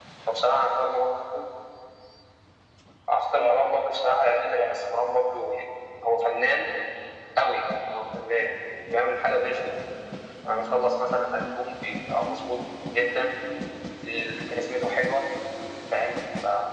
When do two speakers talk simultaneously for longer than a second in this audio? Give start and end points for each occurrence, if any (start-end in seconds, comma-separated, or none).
3.4-4.9